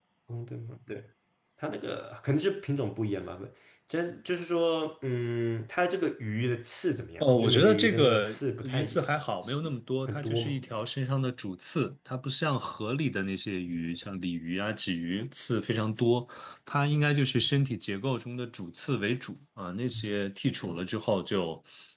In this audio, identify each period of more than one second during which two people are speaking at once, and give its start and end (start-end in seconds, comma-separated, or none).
7.2-9.1